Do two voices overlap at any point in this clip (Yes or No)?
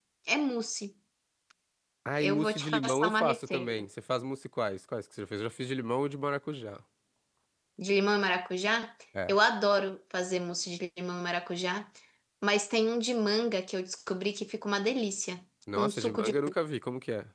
Yes